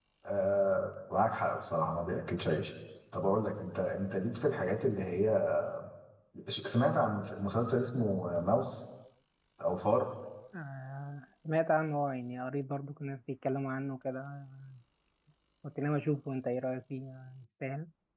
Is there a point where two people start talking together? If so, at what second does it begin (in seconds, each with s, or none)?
none